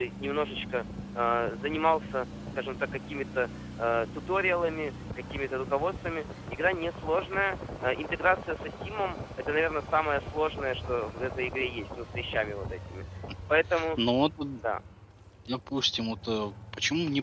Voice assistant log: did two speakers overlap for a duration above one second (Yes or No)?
No